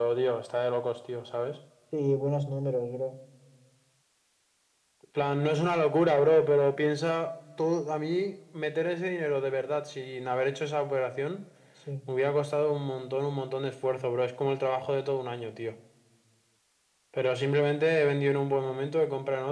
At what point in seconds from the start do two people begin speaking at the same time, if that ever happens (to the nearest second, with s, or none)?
none